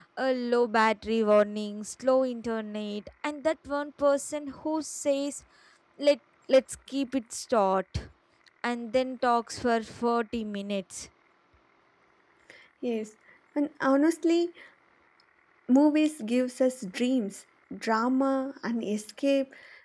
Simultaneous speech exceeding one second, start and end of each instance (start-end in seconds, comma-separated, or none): none